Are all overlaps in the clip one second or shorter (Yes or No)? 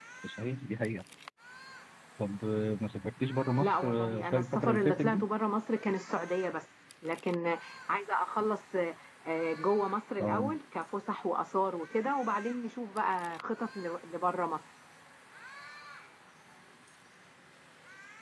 No